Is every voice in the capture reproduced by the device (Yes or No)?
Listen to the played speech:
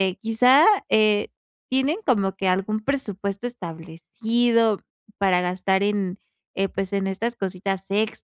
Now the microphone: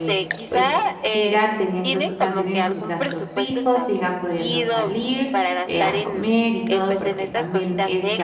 No